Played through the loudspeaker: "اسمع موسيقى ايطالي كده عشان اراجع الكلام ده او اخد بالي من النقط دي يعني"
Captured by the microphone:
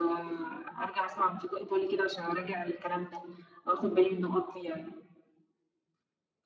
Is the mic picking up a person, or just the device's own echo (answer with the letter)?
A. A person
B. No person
B